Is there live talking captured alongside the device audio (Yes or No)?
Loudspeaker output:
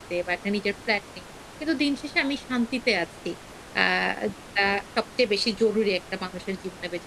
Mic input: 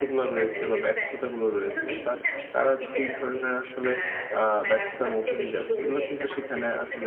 Yes